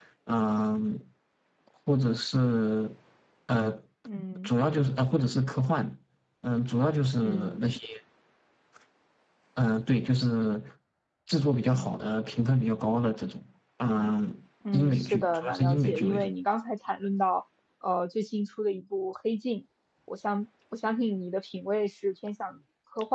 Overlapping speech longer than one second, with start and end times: 14.7-16.3

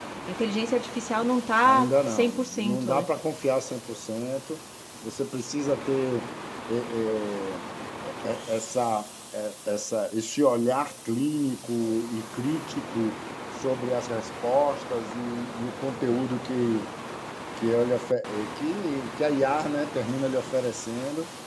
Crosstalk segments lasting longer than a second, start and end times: 1.6-3.1

